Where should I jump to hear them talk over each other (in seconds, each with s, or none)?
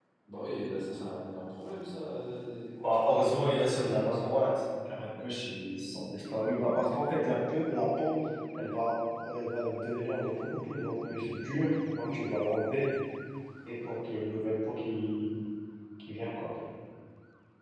3.0 s